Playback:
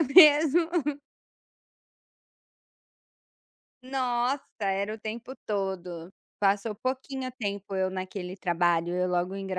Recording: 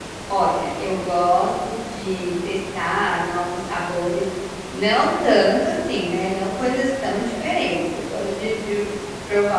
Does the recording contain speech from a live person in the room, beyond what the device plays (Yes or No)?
Yes